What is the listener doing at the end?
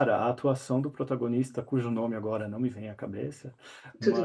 listening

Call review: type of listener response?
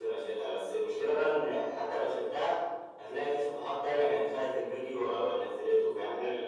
taking over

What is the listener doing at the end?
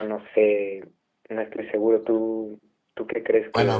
taking over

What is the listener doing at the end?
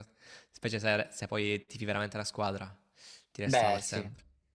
taking over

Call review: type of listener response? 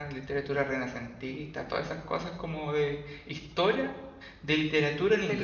taking over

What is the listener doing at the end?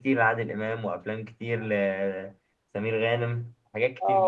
taking over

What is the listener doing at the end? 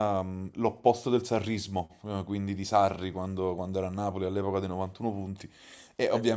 listening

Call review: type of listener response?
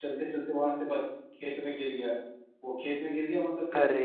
listening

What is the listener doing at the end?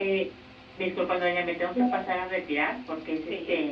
listening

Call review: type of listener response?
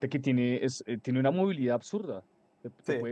listening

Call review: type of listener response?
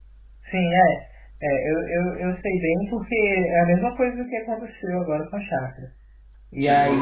listening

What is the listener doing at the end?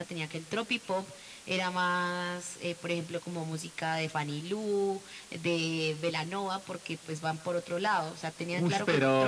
listening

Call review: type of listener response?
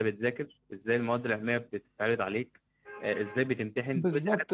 taking over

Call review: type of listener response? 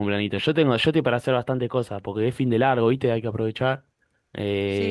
taking over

